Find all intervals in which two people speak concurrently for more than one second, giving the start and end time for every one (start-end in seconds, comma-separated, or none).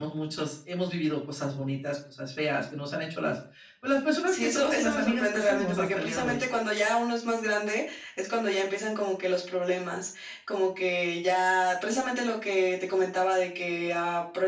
4.3-6.4